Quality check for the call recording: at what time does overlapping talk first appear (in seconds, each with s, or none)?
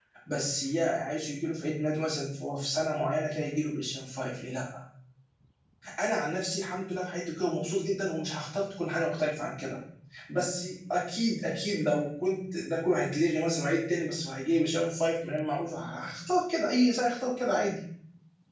none